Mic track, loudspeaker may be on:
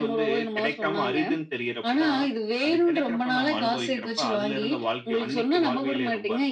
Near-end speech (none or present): none